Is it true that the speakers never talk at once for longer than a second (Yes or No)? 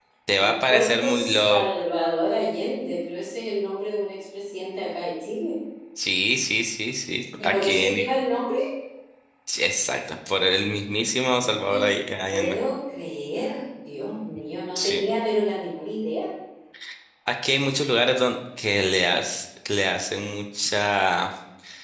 No